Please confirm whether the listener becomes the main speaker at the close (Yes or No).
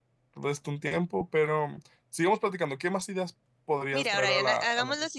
Yes